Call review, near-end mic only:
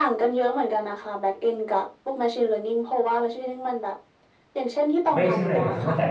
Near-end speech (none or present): present